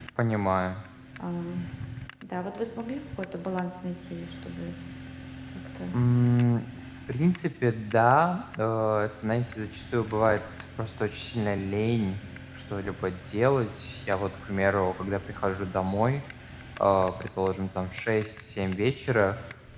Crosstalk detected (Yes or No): No